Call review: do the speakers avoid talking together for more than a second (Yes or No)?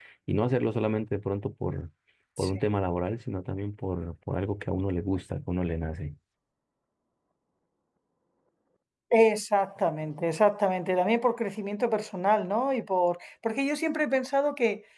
Yes